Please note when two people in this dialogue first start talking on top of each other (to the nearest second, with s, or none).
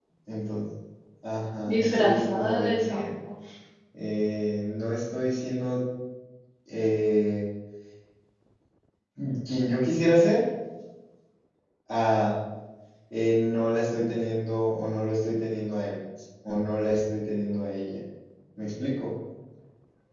2 s